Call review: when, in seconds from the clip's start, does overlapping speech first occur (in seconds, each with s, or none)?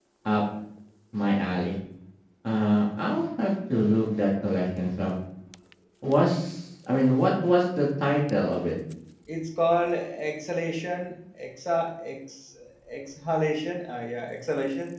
none